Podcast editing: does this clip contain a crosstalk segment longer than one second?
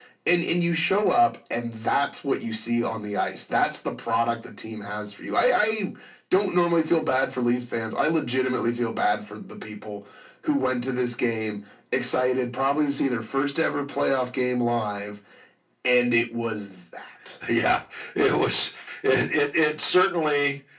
No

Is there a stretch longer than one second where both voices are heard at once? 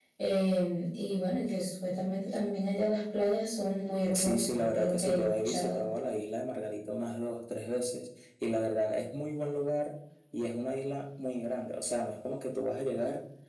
Yes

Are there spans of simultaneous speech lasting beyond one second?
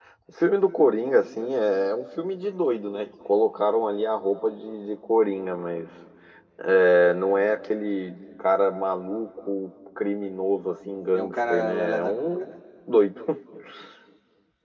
Yes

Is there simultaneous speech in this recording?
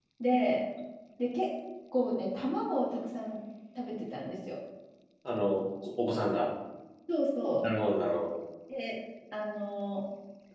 No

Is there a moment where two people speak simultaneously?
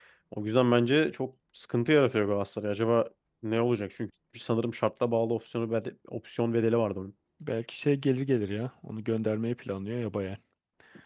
No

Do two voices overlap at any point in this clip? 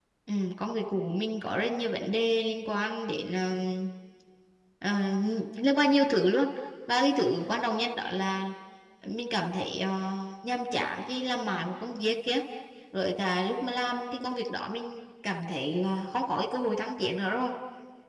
No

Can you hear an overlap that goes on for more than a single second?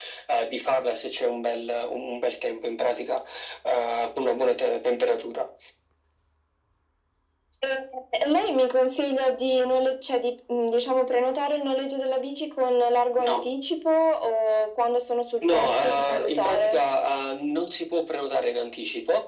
Yes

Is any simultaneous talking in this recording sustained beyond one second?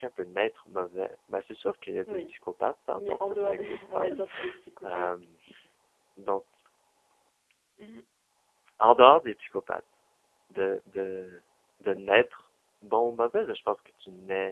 Yes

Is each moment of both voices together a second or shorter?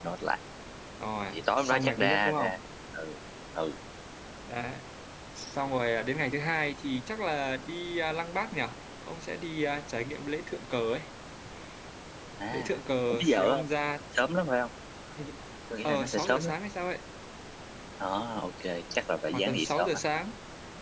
No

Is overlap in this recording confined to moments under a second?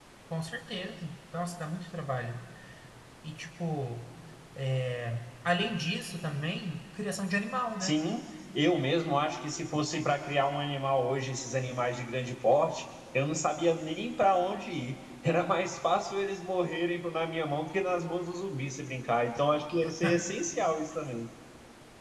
Yes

